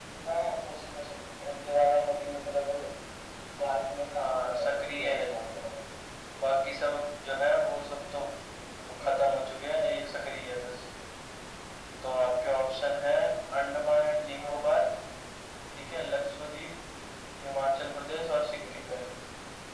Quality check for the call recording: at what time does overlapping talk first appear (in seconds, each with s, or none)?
4.2 s